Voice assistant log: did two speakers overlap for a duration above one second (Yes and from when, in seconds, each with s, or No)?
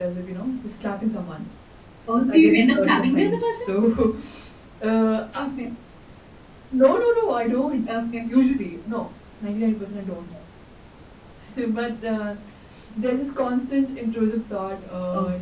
Yes, from 2.3 s